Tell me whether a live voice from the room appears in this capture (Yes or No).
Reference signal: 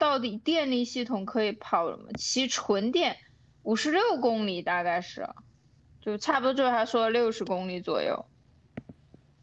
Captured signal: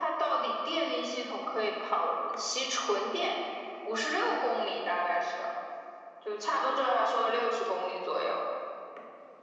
No